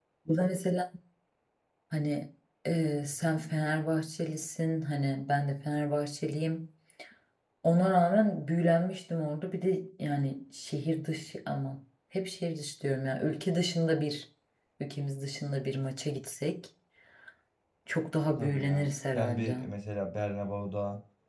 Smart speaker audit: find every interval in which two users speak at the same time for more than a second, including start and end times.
18.4-19.6

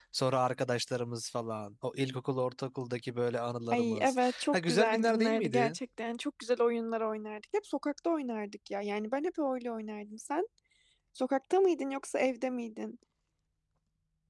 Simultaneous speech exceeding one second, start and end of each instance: 3.7-5.8

